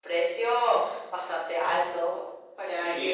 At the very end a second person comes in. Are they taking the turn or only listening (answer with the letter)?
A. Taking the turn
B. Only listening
A